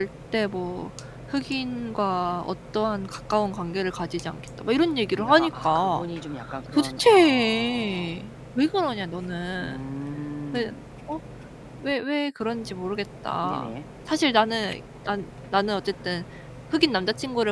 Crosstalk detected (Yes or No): Yes